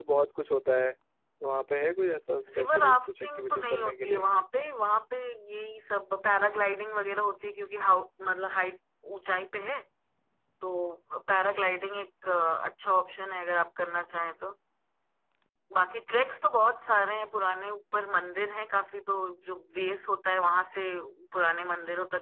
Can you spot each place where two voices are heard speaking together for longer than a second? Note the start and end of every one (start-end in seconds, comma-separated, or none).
2.6-4.3